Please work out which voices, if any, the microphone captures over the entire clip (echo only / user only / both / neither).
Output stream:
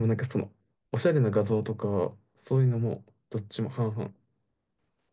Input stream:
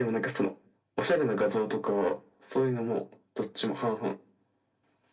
echo only